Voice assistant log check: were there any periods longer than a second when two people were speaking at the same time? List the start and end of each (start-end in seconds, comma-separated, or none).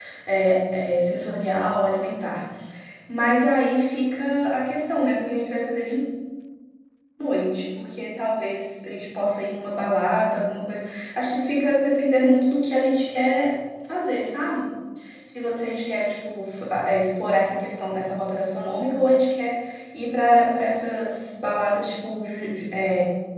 none